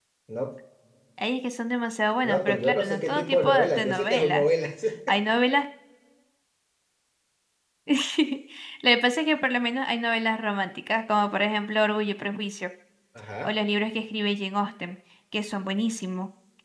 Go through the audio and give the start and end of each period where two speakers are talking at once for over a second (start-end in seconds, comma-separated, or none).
2.2-4.4